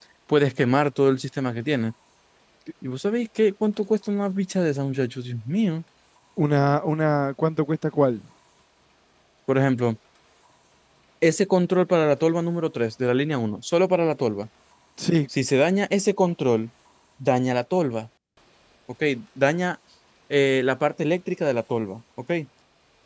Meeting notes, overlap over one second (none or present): none